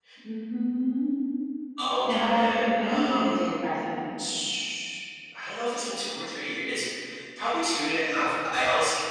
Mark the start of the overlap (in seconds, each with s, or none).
2.0 s